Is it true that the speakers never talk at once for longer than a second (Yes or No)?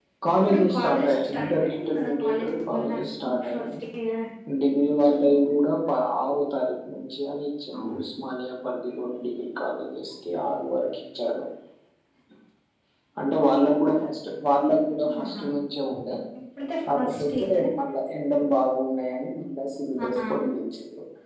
No